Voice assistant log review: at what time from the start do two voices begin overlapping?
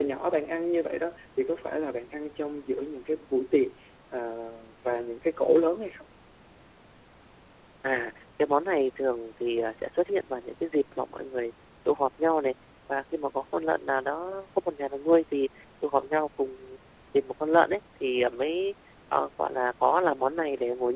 none

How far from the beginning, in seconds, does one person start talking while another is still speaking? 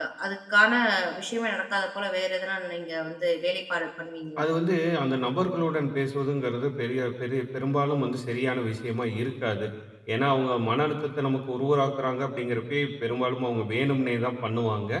none

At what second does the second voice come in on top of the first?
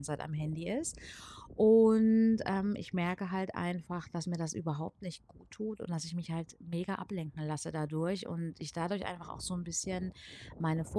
none

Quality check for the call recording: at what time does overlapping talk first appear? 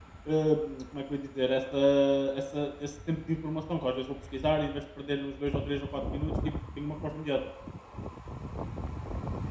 none

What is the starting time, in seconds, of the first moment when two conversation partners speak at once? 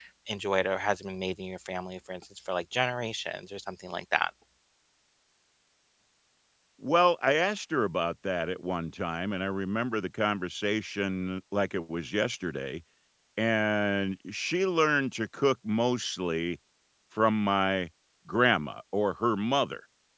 none

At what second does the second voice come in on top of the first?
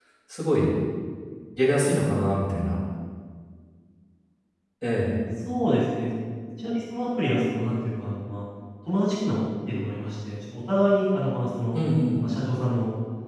none

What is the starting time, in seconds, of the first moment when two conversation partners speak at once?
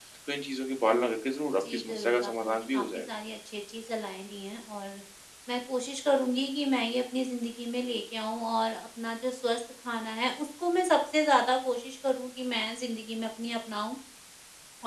1.5 s

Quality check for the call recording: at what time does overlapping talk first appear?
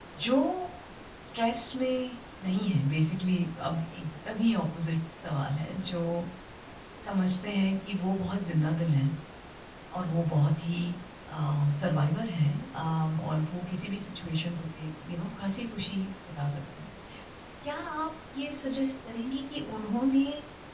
none

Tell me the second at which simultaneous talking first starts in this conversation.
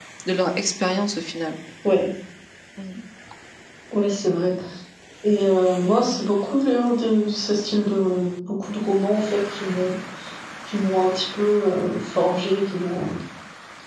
none

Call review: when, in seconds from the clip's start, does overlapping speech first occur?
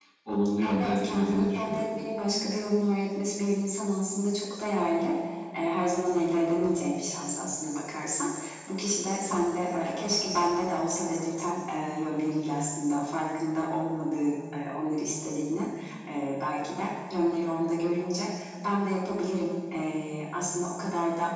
0.6 s

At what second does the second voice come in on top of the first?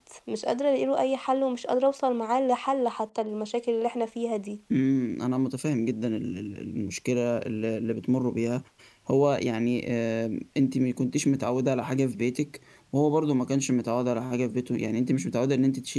none

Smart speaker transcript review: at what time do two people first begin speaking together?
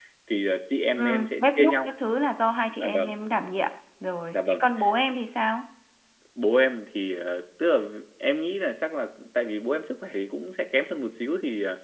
1.0 s

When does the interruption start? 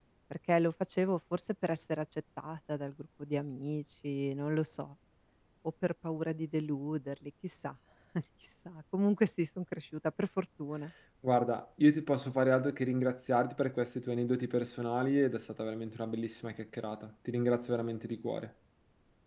none

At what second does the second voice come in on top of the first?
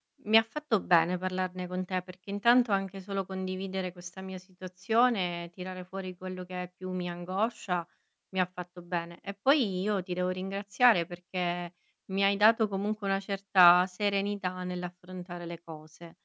none

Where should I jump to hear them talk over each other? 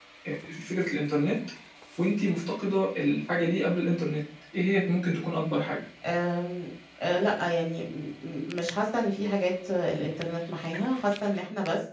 none

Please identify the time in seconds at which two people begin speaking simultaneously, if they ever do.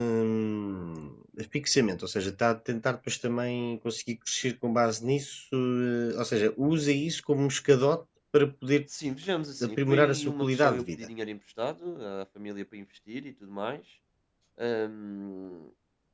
9.6 s

